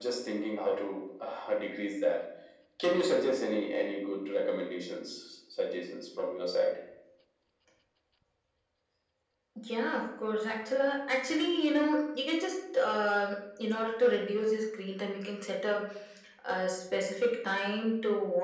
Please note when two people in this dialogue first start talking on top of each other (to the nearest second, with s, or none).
none